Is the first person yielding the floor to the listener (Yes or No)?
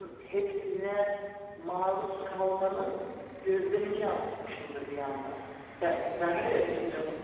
No